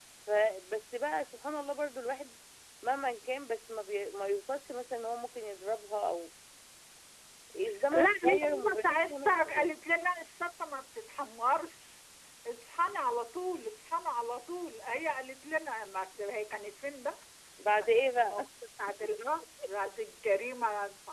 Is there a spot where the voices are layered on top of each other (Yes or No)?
Yes